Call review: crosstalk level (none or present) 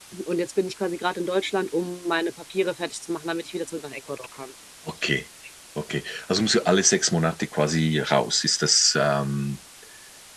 none